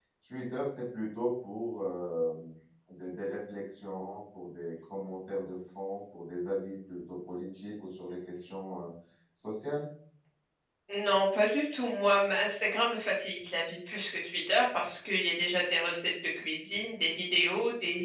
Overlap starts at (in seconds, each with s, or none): none